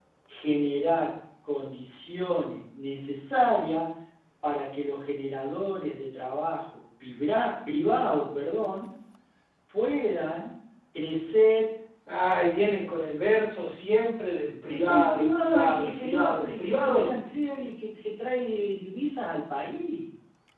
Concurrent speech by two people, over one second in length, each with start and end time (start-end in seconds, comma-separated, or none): 14.7-17.1